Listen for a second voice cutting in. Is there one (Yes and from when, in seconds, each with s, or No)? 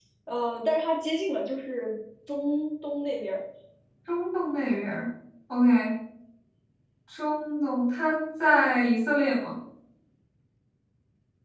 No